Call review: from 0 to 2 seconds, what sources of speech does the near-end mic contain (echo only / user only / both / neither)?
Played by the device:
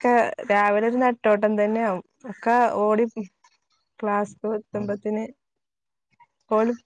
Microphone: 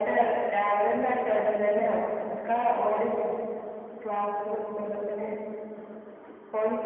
echo only